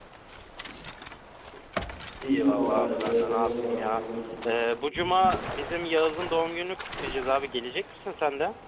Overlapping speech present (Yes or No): Yes